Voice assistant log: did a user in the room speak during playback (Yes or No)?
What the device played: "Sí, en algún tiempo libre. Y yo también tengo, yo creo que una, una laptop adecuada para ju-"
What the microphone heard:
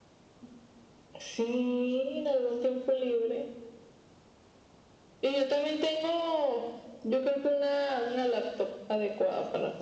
No